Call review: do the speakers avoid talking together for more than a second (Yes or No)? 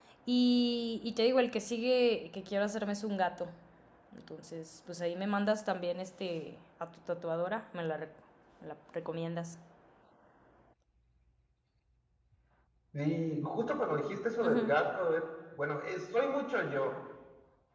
Yes